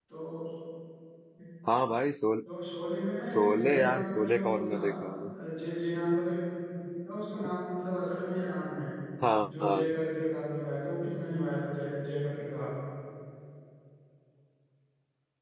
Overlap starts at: 3.4 s

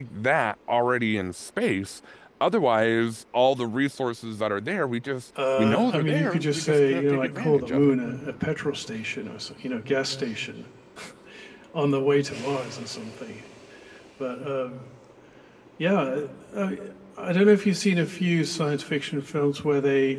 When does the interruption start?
5.3 s

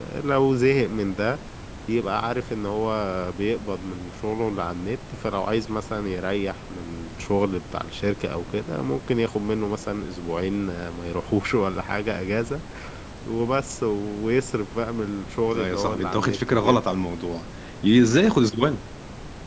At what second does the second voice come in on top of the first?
15.5 s

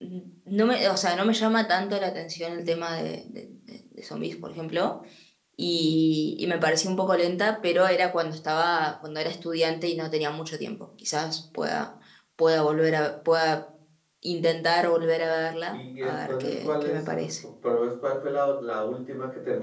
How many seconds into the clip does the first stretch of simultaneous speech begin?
15.7 s

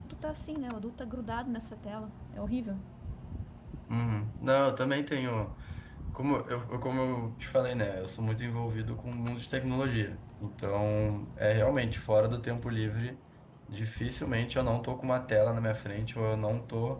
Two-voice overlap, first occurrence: none

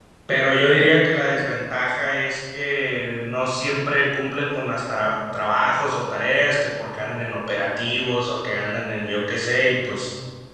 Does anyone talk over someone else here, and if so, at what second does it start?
none

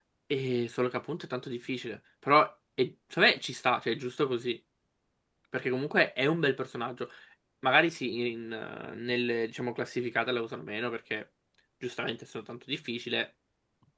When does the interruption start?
none

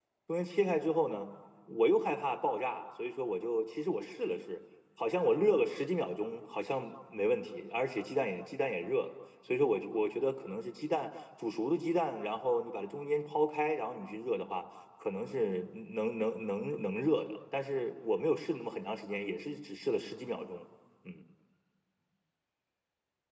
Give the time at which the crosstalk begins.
none

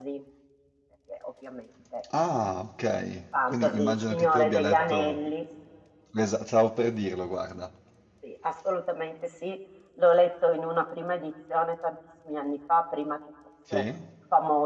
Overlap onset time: 3.4 s

